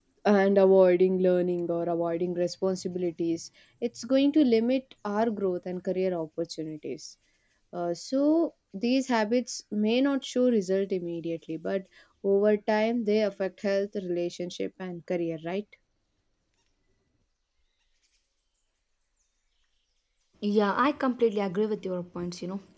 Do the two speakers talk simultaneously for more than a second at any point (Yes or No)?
No